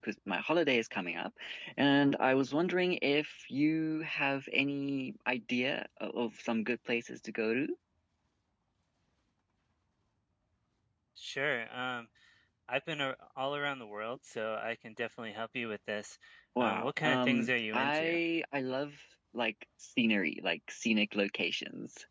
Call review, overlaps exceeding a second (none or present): present